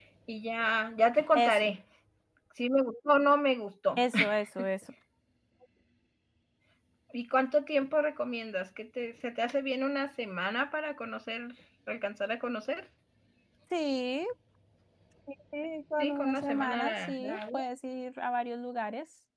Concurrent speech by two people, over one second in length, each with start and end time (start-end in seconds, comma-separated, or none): 16.0-17.6